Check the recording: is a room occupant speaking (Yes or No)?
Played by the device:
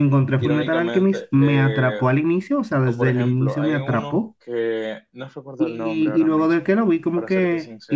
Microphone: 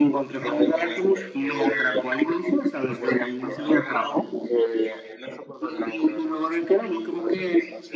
No